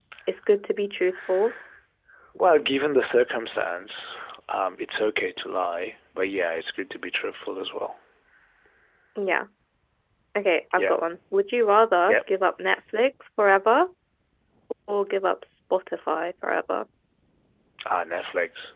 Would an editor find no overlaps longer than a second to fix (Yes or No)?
Yes